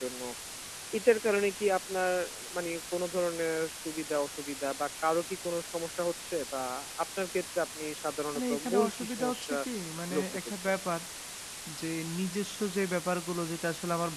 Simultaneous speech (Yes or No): Yes